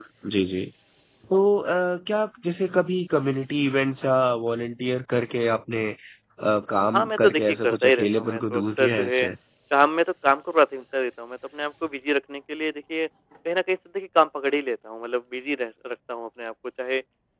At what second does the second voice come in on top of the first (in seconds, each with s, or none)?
6.9 s